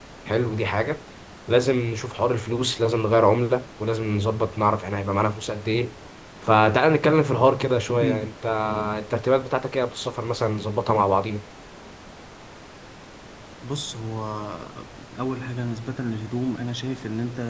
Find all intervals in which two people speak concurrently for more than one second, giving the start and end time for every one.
none

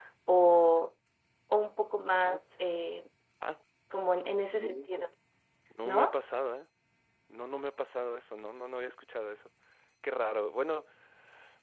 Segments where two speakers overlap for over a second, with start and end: none

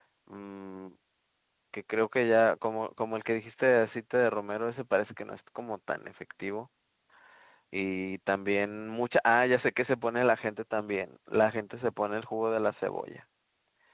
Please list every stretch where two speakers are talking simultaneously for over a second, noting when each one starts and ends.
none

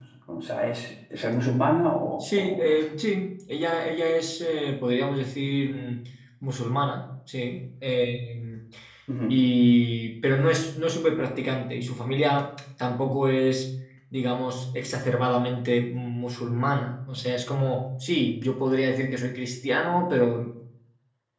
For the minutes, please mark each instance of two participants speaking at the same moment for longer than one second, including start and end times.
none

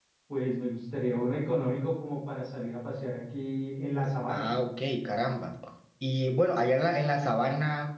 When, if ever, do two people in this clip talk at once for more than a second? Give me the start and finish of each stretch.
none

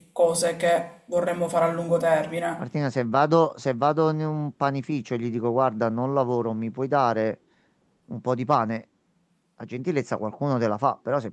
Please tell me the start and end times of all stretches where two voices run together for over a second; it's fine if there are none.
none

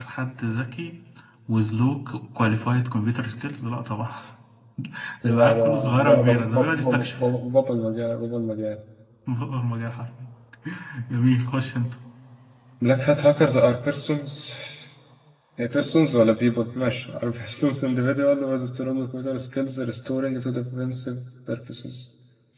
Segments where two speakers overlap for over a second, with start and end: 5.2-7.1

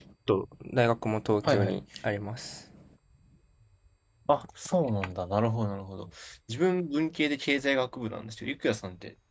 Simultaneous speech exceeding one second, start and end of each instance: none

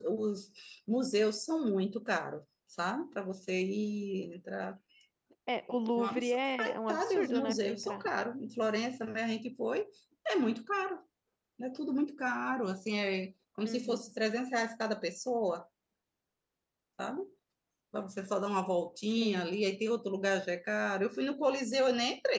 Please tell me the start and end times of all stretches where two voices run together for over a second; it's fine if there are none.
6.0-8.0

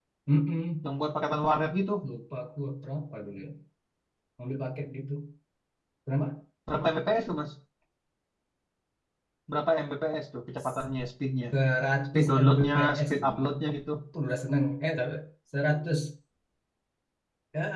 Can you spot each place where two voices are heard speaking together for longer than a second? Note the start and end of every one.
12.2-13.4

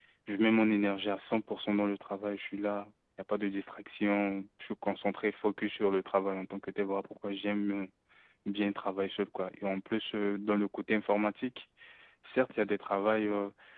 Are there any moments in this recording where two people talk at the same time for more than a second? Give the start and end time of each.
none

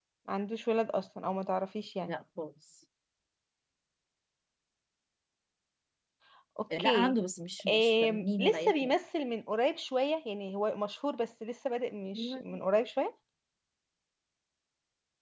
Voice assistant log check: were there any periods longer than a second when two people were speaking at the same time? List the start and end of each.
7.7-8.9

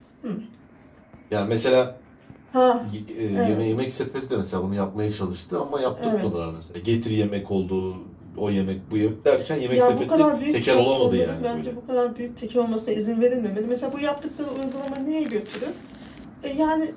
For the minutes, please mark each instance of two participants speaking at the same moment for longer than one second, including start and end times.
9.7-11.7

